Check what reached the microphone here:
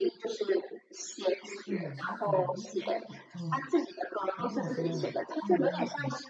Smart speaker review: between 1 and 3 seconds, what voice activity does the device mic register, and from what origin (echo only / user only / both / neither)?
both